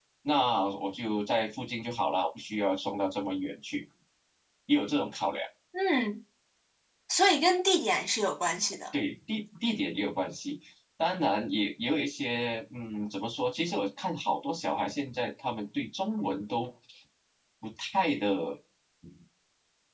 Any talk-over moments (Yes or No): No